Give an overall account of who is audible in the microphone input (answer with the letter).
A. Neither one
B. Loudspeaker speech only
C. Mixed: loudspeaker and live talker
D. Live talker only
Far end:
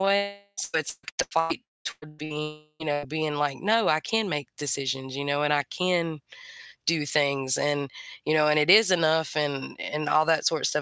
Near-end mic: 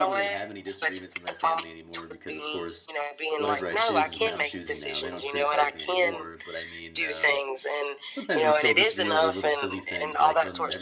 C